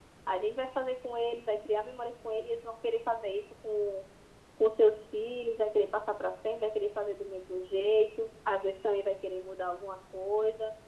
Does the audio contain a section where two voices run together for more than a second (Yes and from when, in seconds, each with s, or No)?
No